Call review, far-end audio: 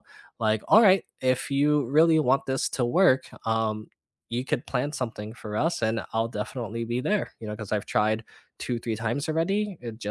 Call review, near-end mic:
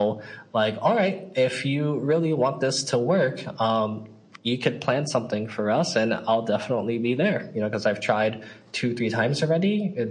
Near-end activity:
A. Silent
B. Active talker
A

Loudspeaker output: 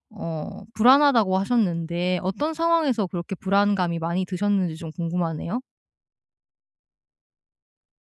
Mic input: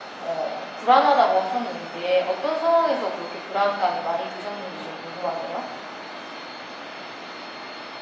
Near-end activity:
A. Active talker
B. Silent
B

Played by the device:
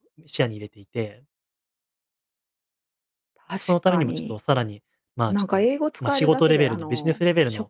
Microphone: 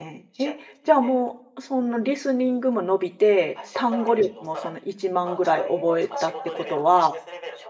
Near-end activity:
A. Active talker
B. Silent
A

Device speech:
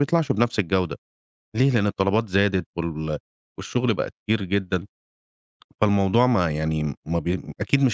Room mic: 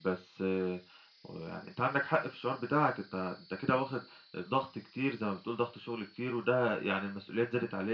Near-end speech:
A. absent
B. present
B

